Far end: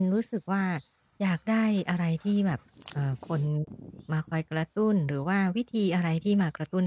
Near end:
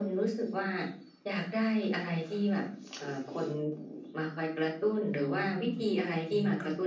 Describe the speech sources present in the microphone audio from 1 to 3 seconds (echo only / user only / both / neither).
echo only